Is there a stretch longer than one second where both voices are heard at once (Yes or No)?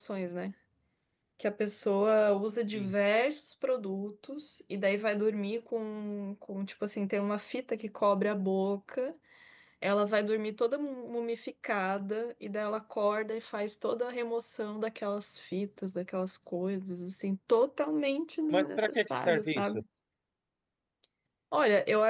Yes